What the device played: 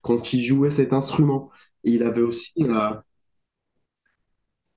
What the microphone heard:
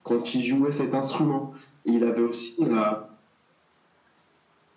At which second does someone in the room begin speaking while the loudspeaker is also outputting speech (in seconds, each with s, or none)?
none